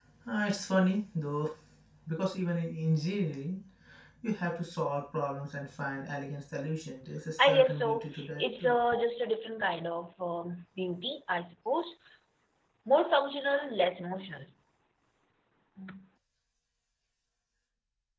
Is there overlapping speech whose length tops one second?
Yes, from 7.4 s

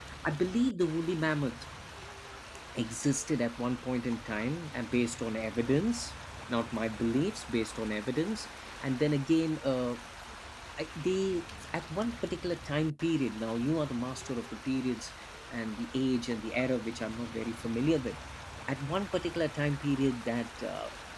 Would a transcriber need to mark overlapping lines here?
No

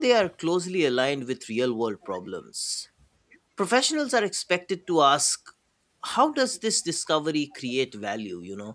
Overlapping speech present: No

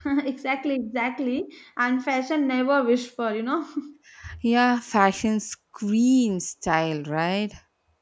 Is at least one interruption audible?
No

